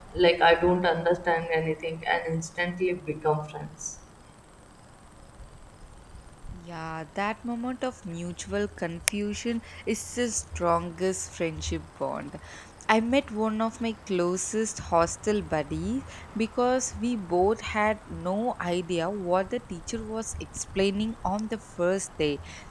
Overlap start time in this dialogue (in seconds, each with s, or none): none